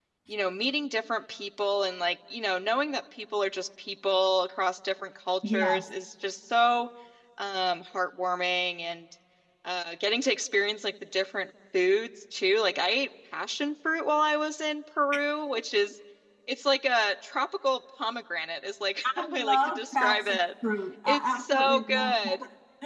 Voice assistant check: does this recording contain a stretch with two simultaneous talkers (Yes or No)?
Yes